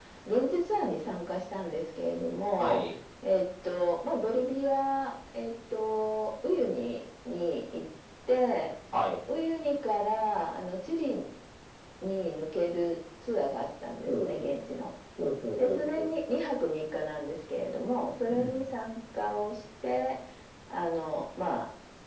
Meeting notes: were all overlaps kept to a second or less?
Yes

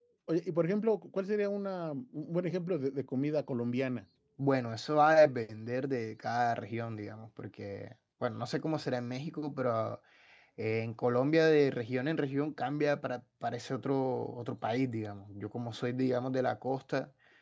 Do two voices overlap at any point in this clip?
No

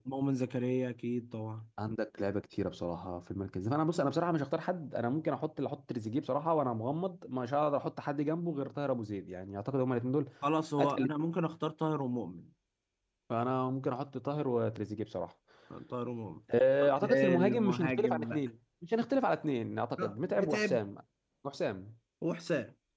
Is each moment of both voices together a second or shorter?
No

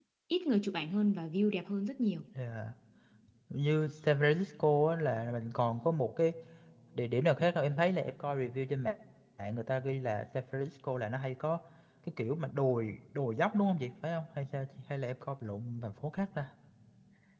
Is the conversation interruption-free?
Yes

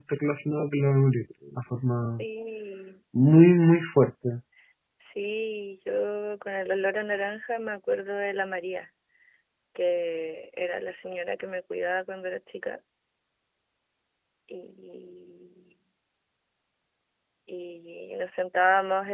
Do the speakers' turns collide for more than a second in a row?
No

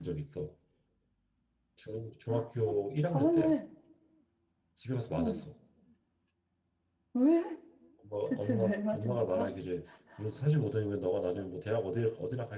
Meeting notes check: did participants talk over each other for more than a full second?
Yes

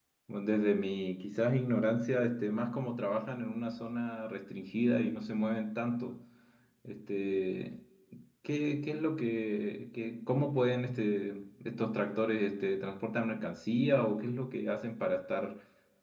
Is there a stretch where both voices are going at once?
No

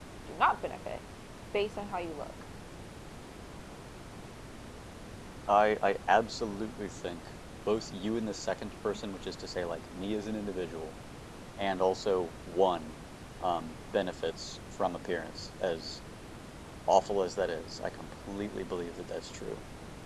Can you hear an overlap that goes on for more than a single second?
No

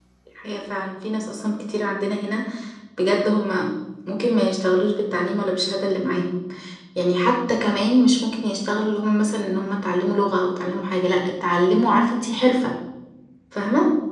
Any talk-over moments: No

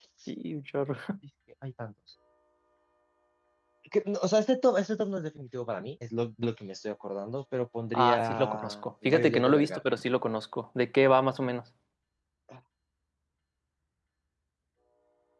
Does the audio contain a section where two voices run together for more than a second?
Yes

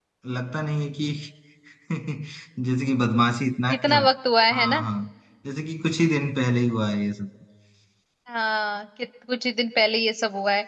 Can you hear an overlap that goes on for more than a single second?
No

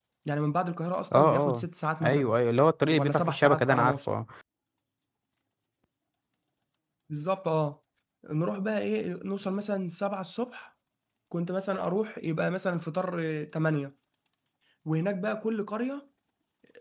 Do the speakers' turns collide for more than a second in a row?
Yes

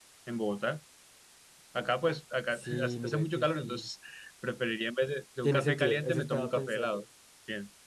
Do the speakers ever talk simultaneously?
Yes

